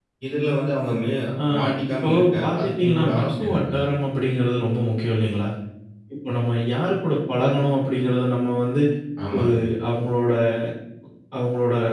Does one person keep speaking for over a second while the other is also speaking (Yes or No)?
Yes